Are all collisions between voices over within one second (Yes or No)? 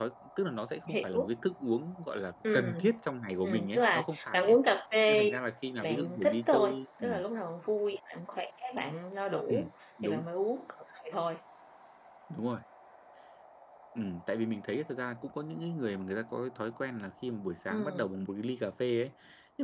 No